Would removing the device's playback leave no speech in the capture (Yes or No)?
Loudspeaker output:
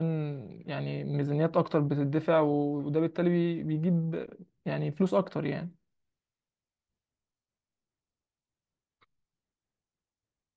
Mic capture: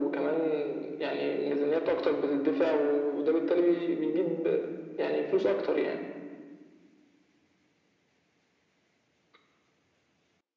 Yes